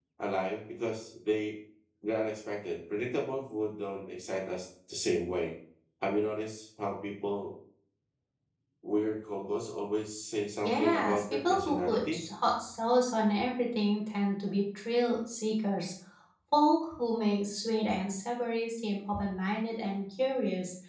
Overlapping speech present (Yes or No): Yes